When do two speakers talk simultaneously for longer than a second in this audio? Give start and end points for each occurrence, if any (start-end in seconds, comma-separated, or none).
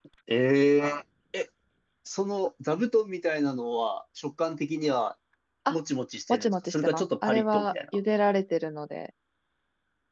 6.3-8.0